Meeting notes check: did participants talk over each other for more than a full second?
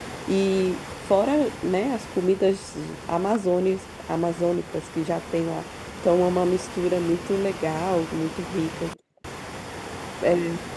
No

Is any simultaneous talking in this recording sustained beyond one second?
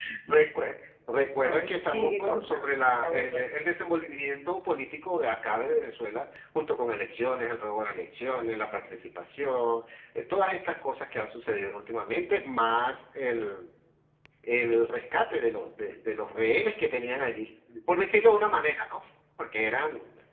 Yes, from 1.3 s

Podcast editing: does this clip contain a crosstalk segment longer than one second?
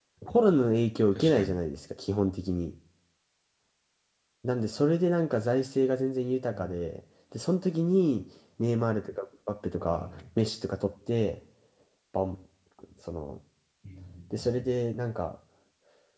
No

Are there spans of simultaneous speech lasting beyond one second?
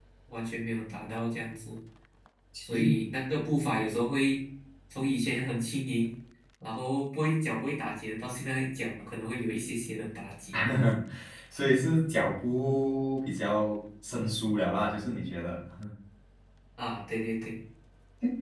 No

